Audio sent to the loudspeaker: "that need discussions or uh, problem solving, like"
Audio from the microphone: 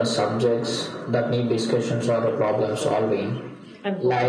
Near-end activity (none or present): present